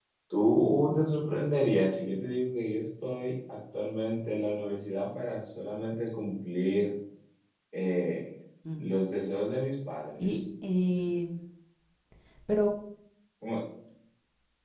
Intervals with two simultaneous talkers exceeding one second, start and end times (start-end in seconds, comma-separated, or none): none